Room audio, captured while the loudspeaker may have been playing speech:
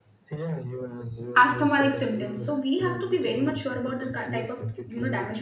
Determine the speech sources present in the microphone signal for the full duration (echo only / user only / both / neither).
both